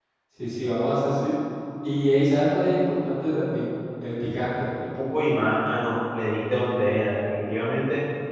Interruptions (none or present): none